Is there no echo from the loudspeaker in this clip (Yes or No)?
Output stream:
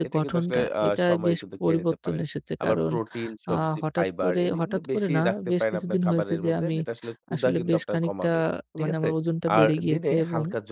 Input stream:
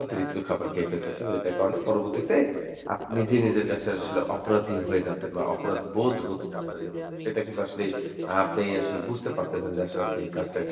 No